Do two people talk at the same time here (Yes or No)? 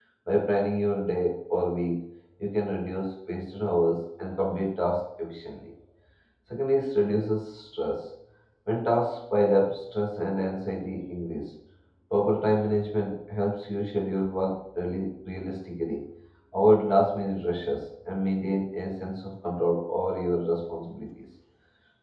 No